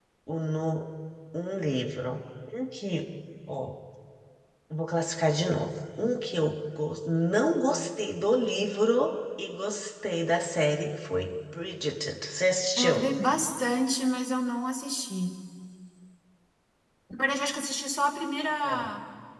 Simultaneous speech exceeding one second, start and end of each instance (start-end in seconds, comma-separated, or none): none